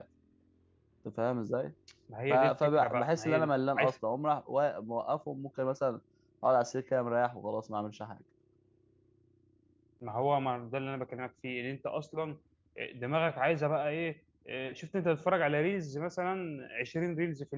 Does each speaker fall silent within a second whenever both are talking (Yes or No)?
No